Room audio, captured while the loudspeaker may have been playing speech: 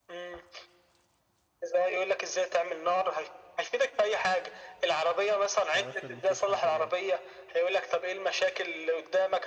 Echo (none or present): present